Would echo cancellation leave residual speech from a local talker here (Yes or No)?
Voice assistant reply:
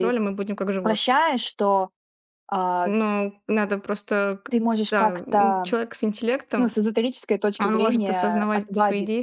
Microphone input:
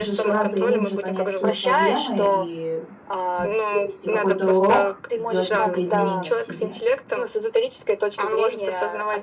Yes